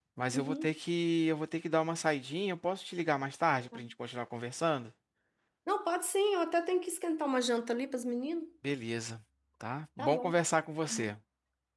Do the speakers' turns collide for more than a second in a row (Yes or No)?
No